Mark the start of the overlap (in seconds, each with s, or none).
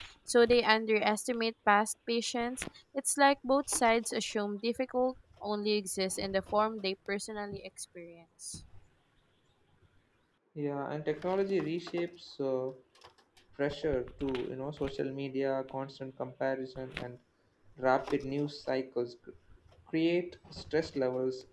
none